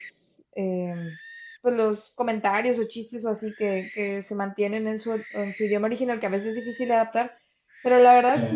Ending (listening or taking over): listening